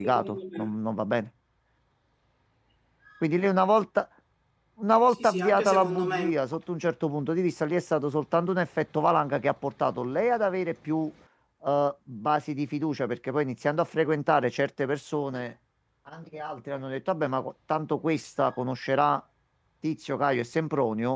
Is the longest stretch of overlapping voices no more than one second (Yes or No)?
No